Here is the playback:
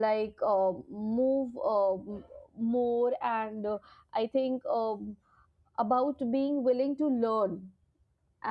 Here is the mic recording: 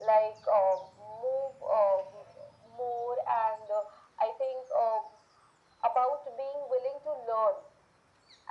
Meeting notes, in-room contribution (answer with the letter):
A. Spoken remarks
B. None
B